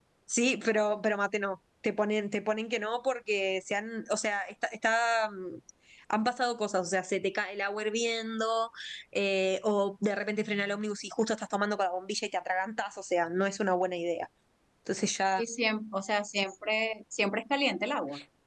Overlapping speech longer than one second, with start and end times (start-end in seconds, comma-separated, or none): none